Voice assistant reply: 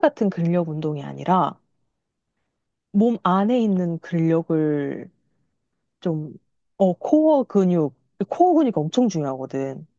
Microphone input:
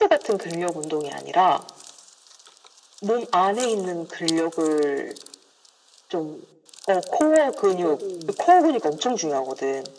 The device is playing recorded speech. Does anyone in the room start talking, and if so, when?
7.7 s

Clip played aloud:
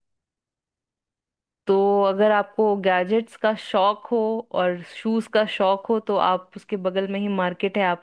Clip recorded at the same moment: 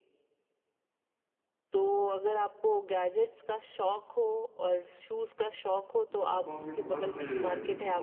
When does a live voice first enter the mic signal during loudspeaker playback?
6.2 s

